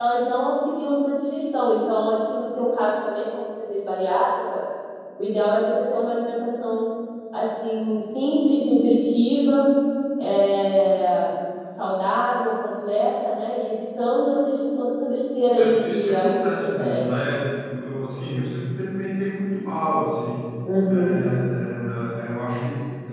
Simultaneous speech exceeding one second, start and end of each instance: 15.6-17.4

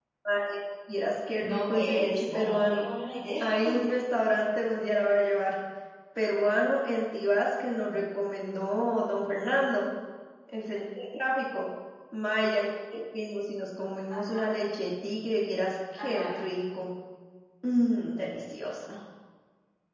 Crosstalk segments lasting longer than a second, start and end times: 1.4-2.9

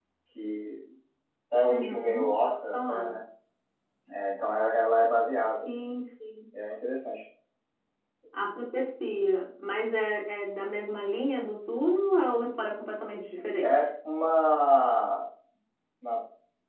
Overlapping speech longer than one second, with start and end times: 1.7-3.2

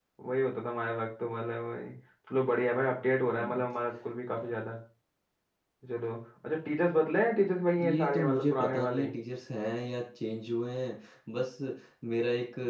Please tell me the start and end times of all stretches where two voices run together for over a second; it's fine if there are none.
7.8-9.1

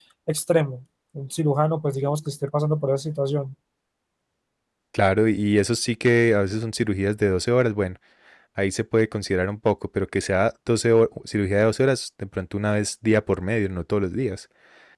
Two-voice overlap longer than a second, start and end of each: none

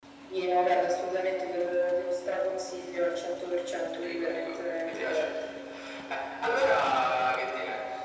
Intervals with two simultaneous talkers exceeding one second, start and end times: 4.0-5.3

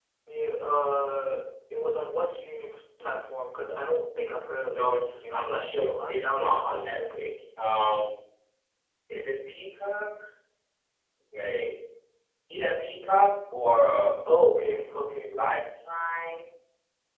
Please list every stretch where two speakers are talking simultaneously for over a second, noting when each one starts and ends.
4.7-7.2

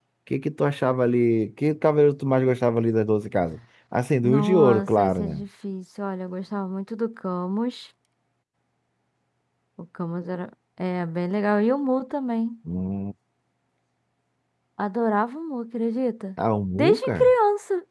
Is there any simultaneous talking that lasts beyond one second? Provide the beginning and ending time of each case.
4.2-5.4

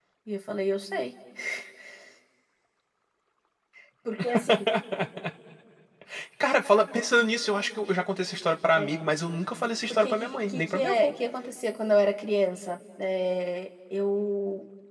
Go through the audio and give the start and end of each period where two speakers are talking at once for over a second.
9.9-11.1

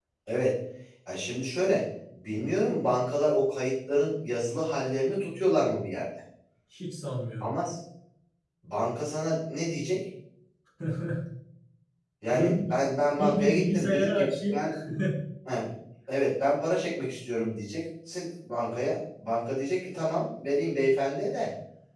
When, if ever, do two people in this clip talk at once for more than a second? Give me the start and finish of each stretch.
13.2-14.6

